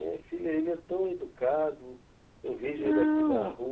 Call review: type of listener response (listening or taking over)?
listening